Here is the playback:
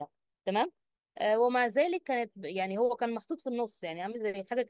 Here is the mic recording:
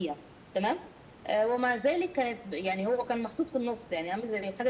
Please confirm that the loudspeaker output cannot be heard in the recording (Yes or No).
No